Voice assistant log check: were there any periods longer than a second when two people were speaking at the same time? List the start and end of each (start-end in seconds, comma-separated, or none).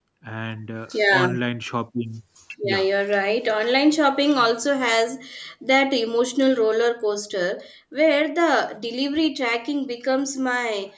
none